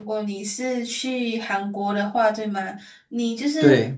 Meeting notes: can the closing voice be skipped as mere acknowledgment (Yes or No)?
Yes